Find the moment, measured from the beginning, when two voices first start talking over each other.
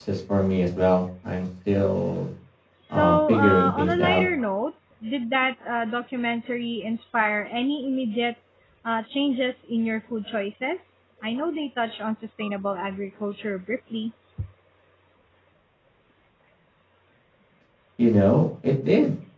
2.9 s

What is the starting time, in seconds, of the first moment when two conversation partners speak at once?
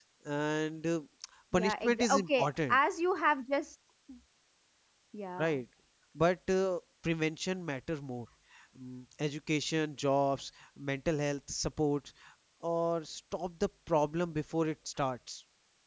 1.5 s

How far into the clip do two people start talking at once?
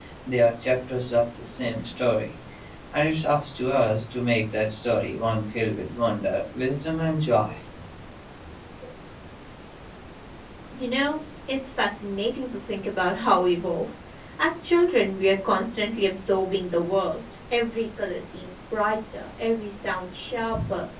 none

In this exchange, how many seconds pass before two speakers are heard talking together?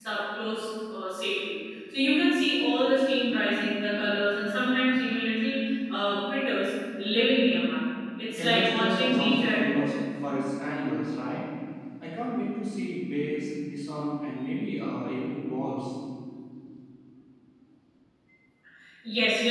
8.4 s

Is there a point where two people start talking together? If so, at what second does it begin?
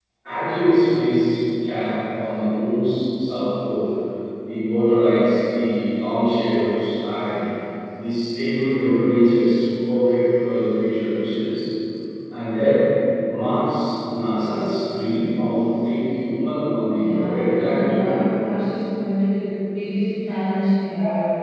16.9 s

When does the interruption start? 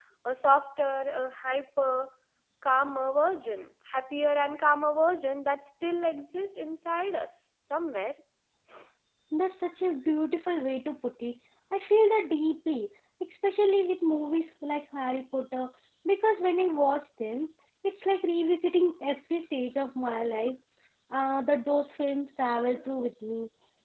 none

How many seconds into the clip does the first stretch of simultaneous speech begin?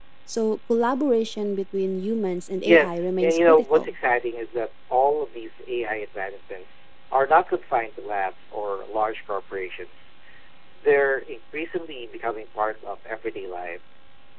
2.6 s

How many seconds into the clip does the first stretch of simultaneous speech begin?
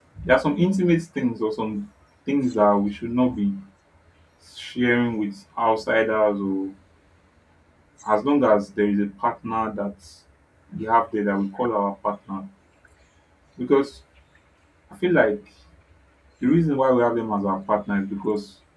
none

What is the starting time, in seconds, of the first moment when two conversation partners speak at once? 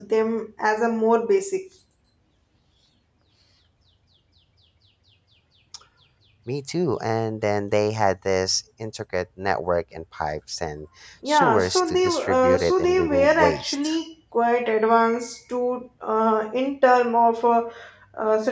11.3 s

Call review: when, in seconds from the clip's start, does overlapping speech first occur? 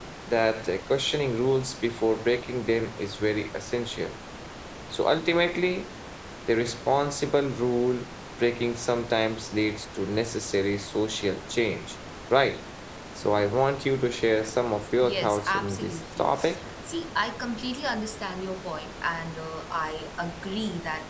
15.0 s

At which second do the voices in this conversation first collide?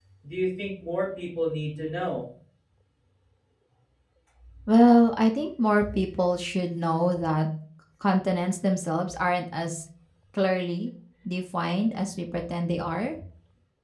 none

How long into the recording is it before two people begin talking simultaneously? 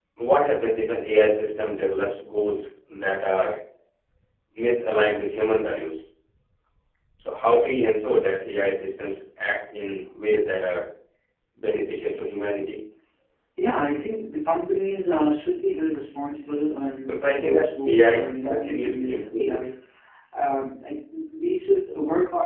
17.1 s

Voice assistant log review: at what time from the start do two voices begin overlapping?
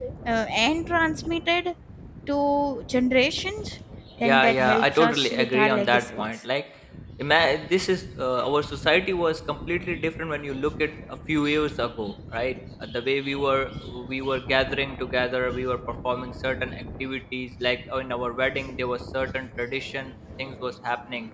4.2 s

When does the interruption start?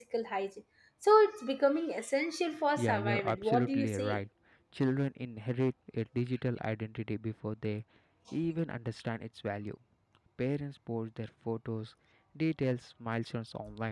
2.8 s

